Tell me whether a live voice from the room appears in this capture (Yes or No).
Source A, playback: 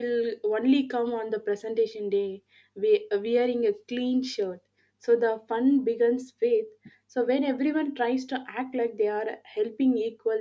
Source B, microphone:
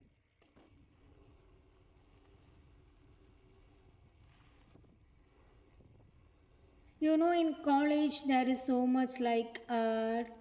Yes